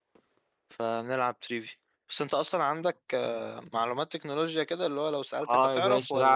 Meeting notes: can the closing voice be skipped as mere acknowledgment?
No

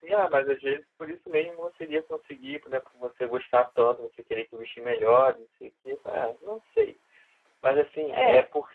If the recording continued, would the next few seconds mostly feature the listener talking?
No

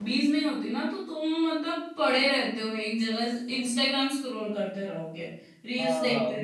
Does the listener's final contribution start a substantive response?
Yes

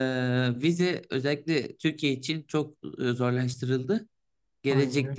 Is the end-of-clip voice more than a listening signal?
No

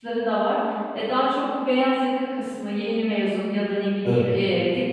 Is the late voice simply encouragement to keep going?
Yes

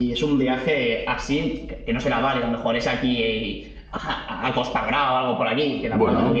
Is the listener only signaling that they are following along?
Yes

